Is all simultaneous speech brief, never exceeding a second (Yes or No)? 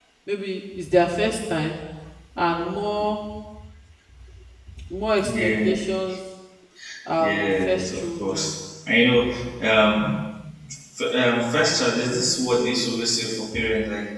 No